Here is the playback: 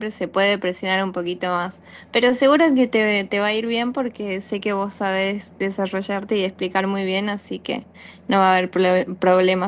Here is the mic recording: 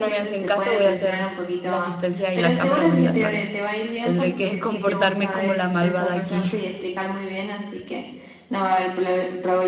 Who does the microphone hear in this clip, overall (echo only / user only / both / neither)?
both